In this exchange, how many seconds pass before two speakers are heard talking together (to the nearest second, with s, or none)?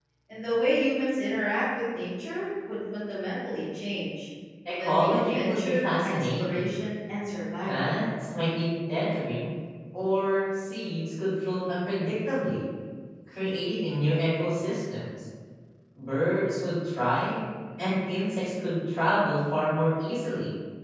5 s